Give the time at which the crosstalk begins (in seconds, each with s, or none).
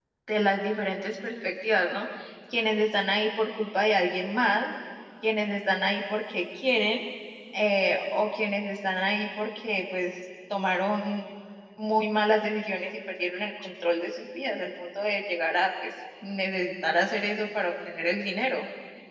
none